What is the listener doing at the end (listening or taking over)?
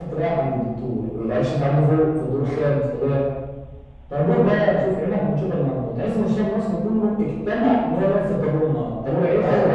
taking over